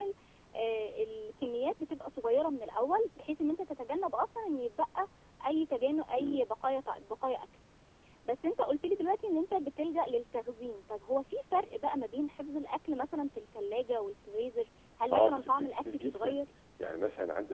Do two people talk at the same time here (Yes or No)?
Yes